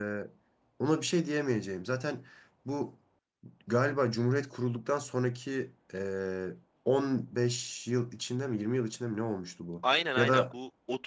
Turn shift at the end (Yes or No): Yes